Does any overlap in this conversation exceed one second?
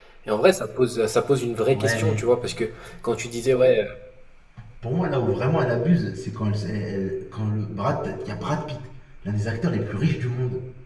No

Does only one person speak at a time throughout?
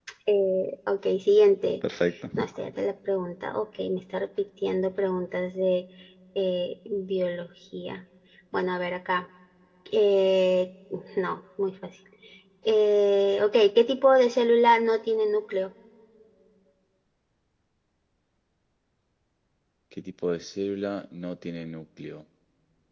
Yes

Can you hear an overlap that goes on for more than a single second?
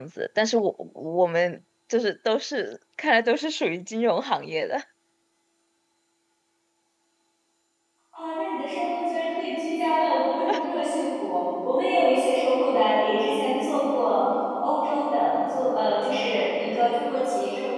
No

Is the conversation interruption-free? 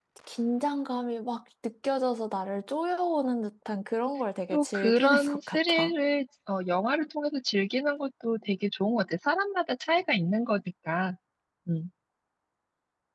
No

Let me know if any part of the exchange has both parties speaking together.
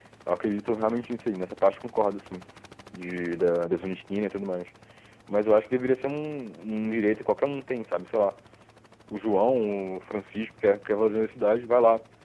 No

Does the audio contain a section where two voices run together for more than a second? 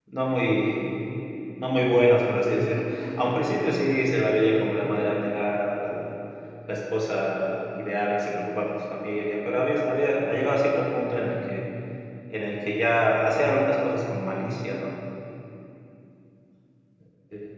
No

